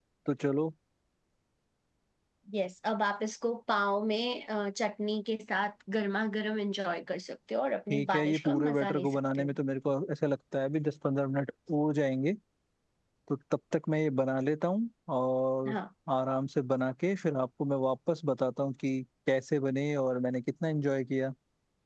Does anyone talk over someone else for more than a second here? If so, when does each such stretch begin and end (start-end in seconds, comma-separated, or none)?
7.9-9.5